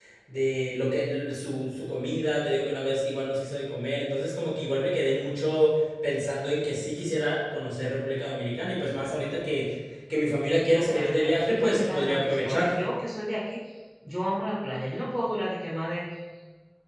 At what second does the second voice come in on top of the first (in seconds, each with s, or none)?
10.7 s